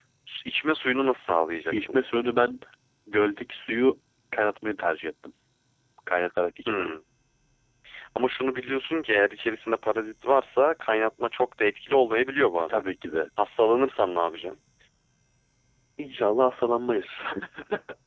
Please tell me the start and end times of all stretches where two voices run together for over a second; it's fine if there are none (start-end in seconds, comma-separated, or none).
none